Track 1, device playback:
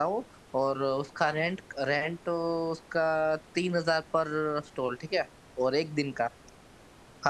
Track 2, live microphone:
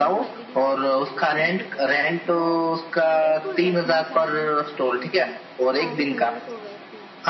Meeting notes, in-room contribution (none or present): present